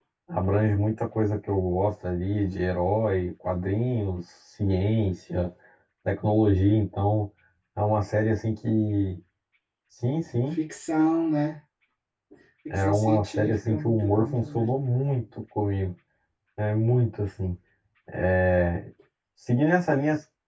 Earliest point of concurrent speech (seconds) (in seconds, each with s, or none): 12.7 s